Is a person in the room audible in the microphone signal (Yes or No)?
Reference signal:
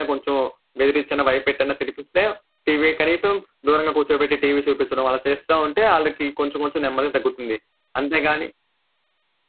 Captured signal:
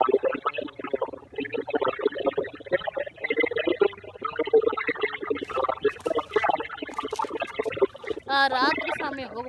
Yes